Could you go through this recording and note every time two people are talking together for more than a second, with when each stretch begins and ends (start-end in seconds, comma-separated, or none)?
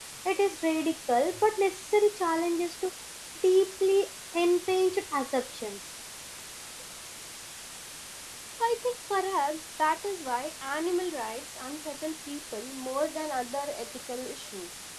none